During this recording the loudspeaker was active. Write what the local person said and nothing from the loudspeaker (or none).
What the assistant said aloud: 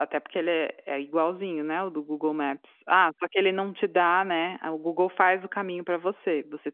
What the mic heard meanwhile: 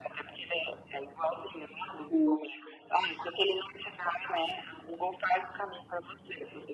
Hum.